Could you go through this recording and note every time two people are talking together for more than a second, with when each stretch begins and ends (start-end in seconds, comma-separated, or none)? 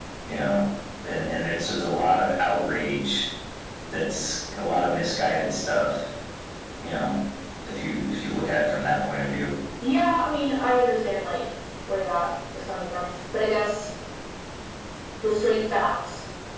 none